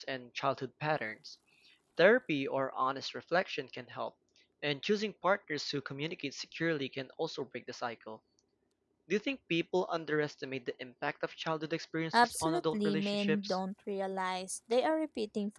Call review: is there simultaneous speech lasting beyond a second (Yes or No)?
Yes